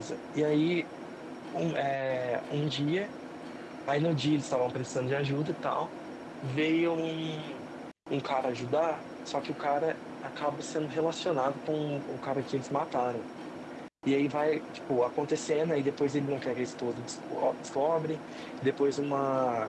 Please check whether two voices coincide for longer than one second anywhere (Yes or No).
No